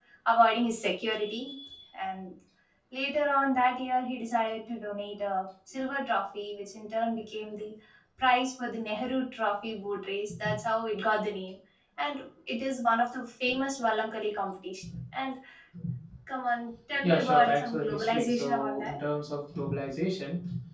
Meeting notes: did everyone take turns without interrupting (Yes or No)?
No